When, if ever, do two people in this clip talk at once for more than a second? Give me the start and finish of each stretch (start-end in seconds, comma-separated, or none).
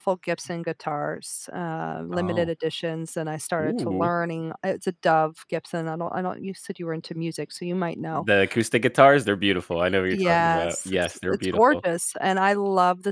10.1-11.8